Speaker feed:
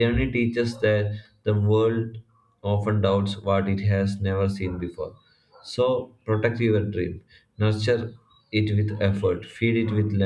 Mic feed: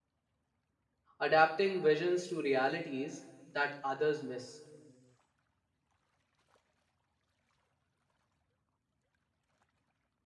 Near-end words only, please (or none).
Adapting visions to realities that others miss